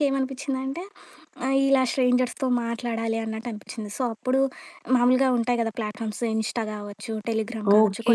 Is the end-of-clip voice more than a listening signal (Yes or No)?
Yes